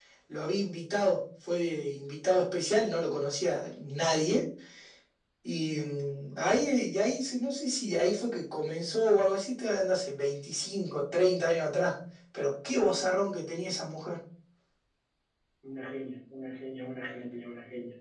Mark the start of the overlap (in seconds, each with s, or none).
none